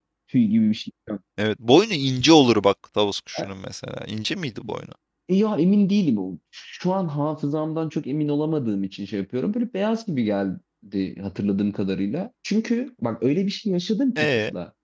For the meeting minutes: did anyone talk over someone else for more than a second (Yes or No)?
No